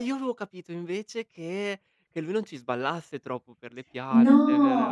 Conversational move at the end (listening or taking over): taking over